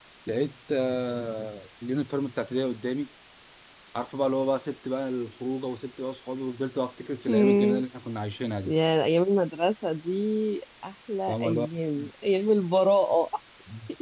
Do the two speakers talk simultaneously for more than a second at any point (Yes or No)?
No